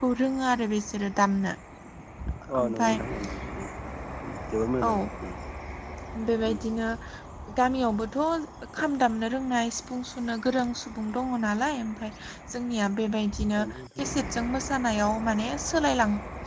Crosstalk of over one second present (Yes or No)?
No